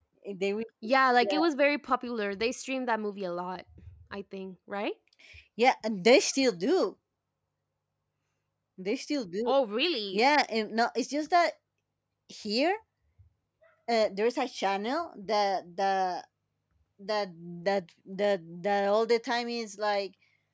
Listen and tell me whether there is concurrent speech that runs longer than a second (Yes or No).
No